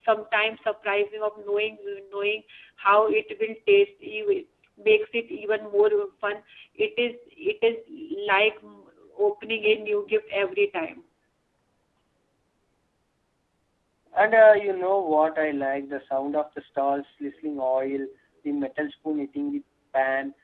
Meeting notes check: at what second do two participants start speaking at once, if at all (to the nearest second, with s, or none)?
none